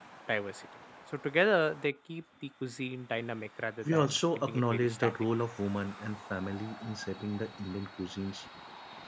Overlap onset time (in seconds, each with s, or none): 3.8 s